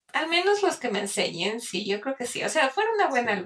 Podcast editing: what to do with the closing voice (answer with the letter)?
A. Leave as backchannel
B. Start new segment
A